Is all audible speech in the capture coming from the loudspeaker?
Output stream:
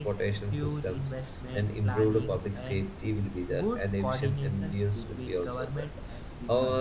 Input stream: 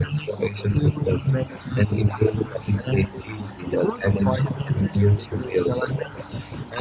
Yes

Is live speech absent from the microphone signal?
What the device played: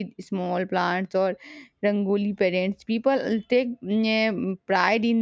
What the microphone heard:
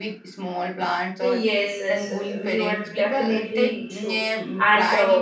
No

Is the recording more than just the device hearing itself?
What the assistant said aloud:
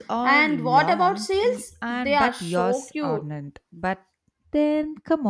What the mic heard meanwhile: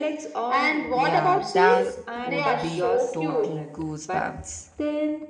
Yes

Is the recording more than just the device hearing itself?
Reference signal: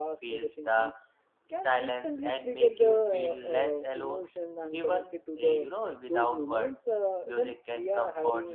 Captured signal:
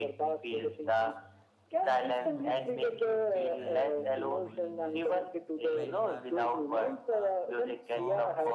Yes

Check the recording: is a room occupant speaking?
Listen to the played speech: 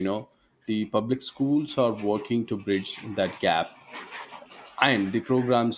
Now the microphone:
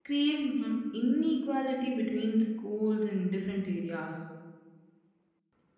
Yes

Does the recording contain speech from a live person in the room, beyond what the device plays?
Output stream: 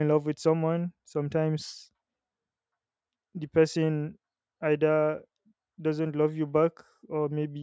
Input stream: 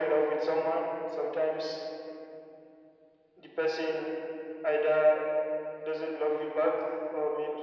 No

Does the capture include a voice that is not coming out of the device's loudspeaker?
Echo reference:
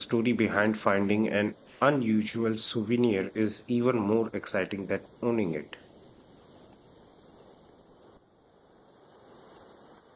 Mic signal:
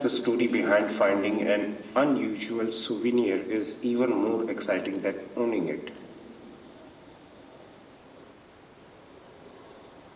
No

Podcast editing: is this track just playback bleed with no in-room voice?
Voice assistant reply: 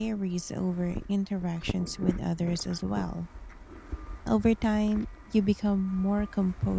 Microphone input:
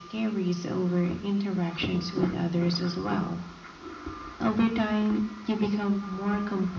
Yes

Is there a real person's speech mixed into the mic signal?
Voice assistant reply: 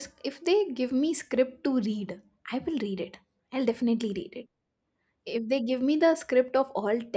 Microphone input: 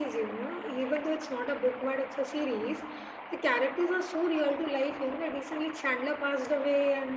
Yes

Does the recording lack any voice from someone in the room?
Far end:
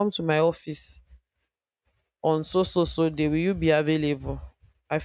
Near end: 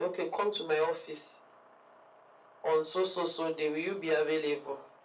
Yes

